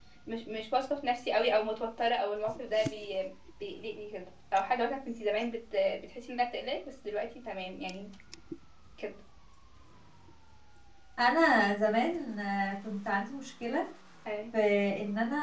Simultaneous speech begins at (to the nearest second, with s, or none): none